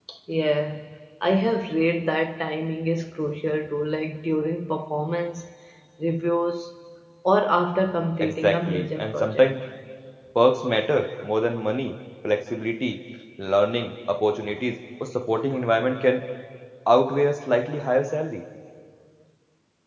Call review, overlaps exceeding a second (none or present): present